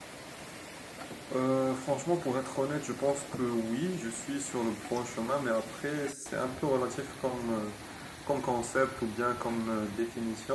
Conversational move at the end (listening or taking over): listening